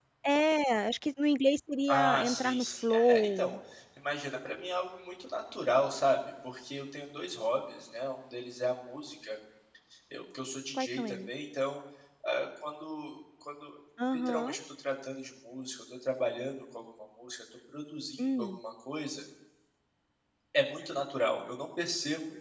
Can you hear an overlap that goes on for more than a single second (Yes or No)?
Yes